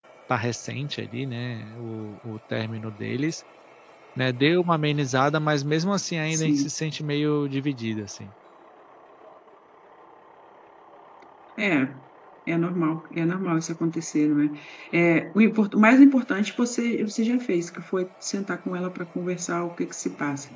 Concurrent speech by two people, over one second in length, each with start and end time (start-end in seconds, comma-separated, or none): none